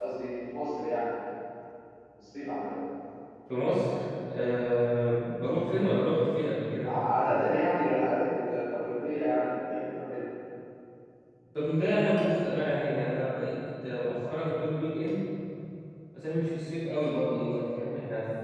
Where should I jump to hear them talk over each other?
none

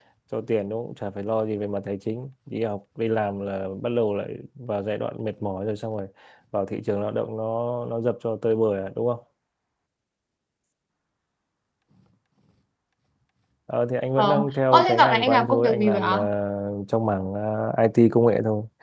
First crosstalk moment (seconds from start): 14 s

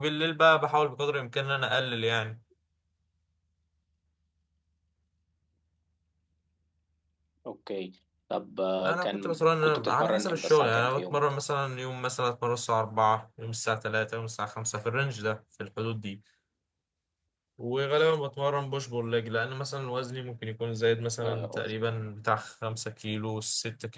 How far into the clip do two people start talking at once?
9 s

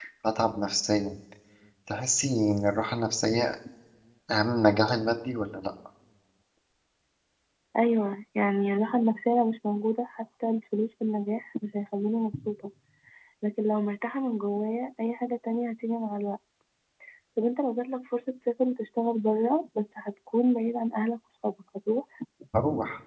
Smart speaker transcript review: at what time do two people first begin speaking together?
none

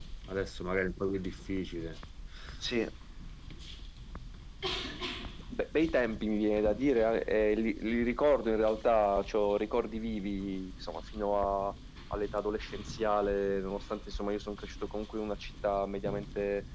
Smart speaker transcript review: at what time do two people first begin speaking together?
none

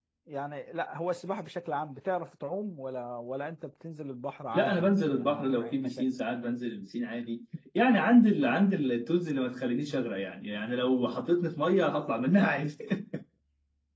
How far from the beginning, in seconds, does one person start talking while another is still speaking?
5 s

